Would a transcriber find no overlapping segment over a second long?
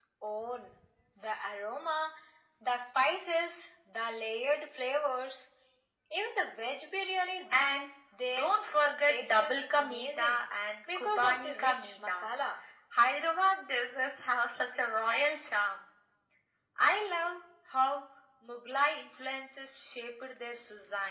No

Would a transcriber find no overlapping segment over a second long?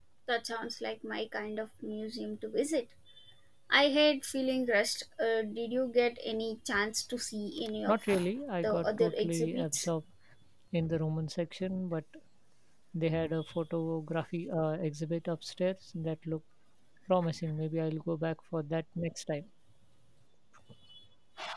No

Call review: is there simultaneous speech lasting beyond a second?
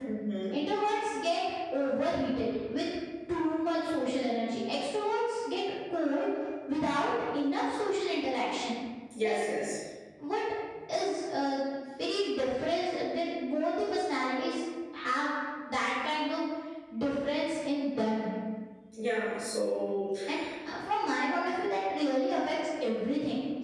No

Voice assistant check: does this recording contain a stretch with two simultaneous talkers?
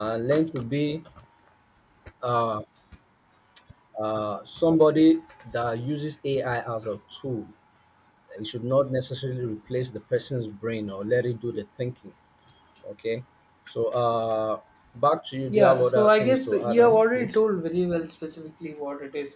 Yes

